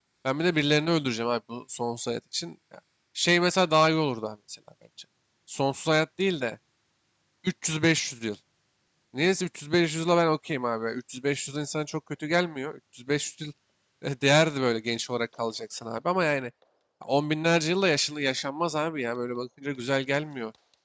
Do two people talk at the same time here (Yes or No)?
No